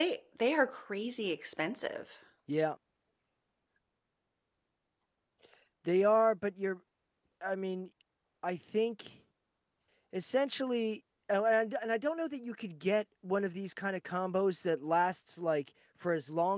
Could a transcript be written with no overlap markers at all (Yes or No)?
Yes